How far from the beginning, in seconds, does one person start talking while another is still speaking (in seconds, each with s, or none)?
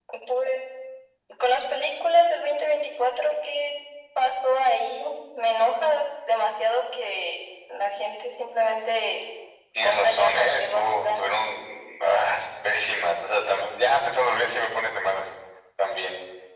9.8 s